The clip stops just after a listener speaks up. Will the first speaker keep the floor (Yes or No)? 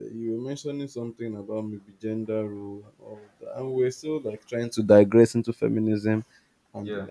Yes